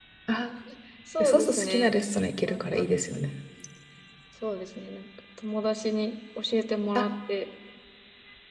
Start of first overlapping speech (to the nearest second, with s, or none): 1 s